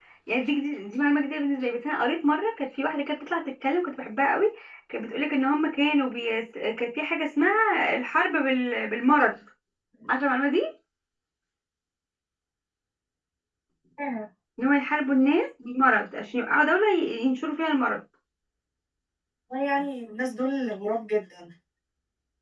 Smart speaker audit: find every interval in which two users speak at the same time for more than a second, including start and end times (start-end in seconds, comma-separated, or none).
none